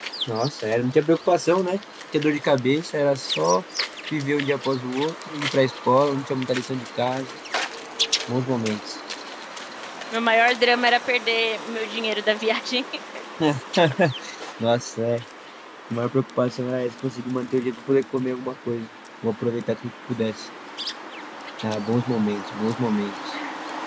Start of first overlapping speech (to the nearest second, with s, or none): none